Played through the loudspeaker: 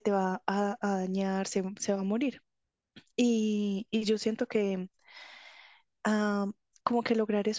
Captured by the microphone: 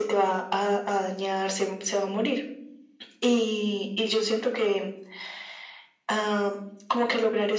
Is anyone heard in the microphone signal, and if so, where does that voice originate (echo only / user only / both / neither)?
echo only